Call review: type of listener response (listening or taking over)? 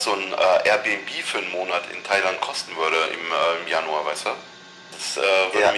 listening